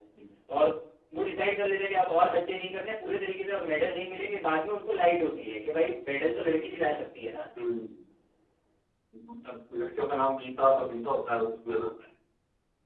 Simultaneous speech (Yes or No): No